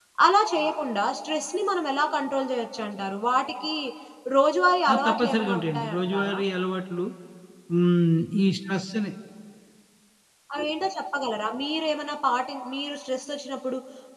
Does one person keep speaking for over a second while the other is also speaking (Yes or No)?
Yes